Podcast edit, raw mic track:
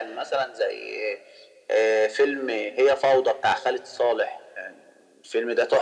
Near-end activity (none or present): none